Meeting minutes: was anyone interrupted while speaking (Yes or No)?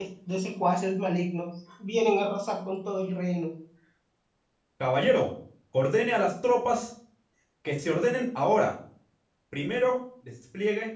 No